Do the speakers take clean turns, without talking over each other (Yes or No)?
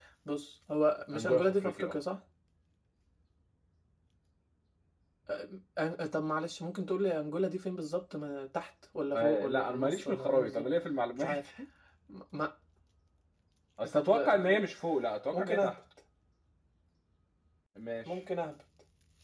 No